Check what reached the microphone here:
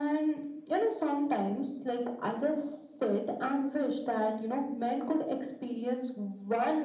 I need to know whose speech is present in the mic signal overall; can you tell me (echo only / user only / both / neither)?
echo only